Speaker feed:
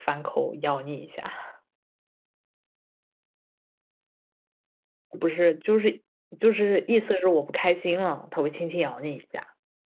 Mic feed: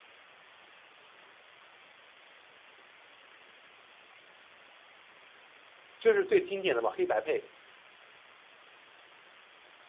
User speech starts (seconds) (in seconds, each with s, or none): 6.0 s